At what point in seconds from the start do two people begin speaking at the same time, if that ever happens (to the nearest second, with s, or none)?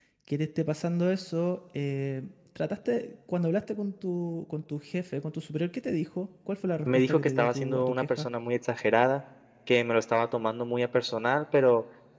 7 s